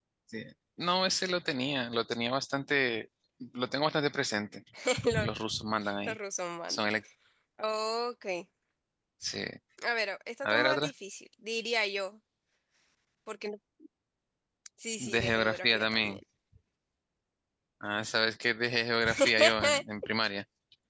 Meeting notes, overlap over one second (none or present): present